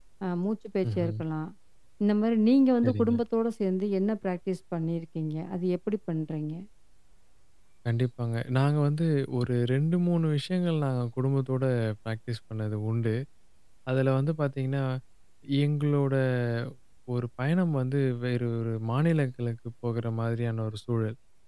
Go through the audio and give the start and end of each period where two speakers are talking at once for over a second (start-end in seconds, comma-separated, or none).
none